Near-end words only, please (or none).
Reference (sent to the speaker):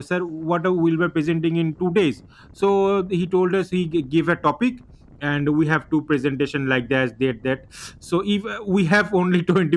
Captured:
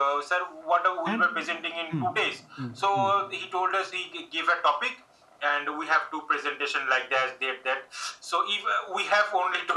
And mm, mm, mm, mm,